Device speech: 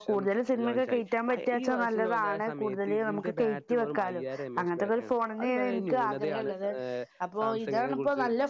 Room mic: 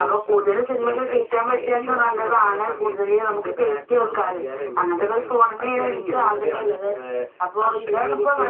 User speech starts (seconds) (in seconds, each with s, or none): none